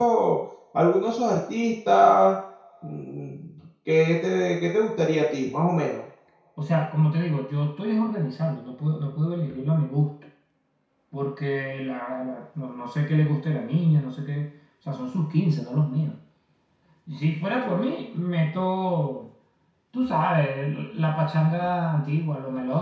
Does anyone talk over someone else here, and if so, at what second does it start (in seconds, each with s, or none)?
none